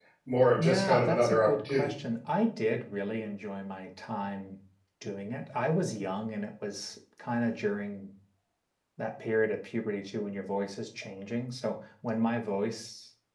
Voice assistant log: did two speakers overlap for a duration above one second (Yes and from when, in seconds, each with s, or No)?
Yes, from 0.6 s